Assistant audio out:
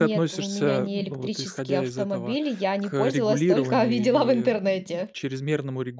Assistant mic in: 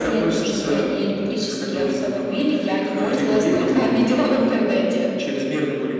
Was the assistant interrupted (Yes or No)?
No